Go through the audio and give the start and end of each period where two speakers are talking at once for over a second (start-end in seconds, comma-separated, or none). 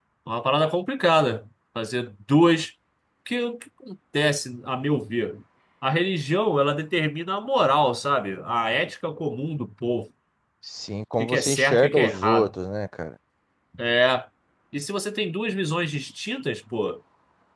11.2-12.5